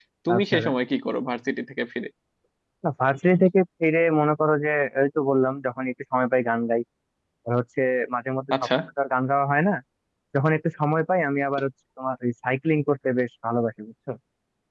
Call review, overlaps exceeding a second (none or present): none